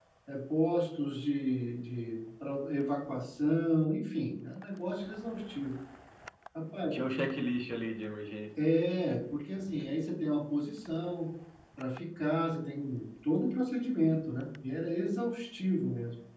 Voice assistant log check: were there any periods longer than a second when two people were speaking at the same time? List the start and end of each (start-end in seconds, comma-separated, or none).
none